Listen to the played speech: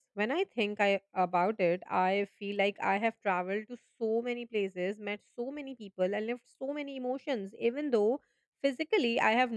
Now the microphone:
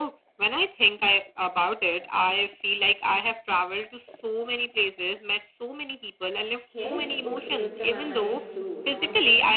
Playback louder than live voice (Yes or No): Yes